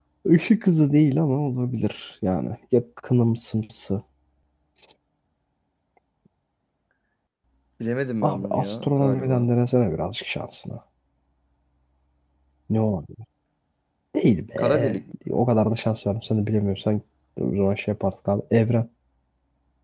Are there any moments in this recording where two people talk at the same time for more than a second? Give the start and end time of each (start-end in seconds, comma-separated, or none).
8.2-9.5